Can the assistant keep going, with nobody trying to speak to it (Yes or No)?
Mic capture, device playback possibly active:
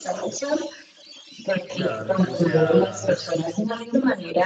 No